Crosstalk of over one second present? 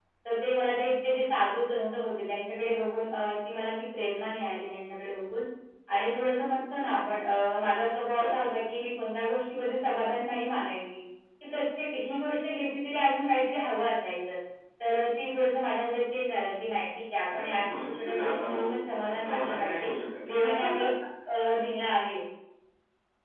Yes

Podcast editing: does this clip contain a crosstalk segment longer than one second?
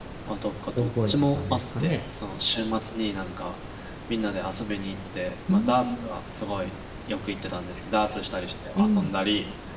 Yes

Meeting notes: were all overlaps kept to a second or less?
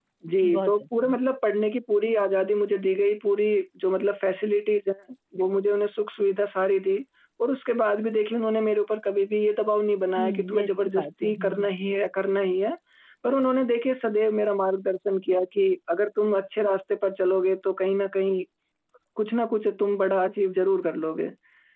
No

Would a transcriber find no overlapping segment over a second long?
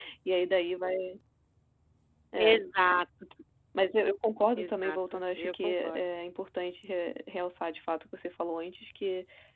No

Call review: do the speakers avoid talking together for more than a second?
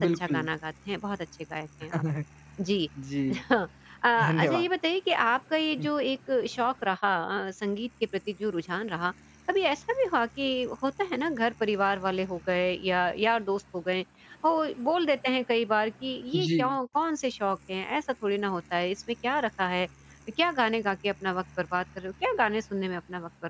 Yes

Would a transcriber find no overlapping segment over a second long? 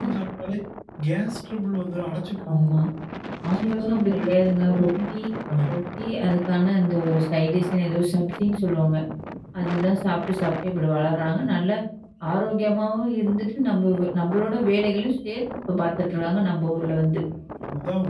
No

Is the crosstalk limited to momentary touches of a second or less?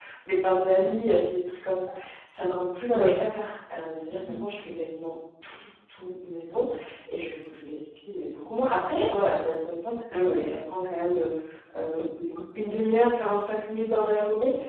Yes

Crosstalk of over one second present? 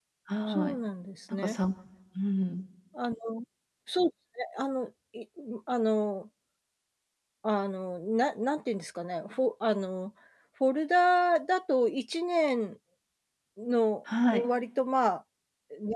No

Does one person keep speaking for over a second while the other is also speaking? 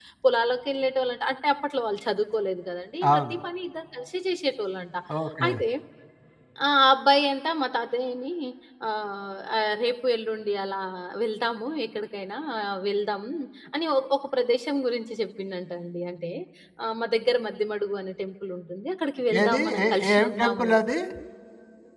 Yes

